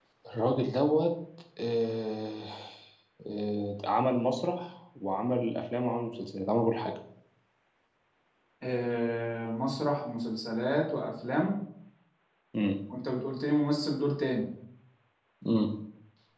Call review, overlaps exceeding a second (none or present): none